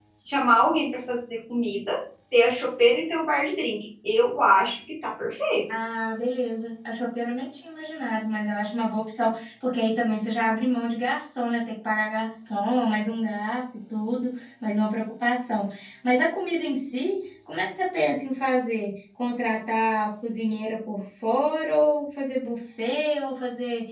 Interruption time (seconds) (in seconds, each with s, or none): none